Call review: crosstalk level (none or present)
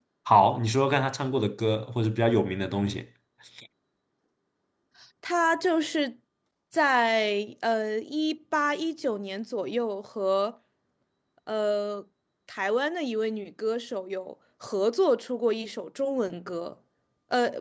none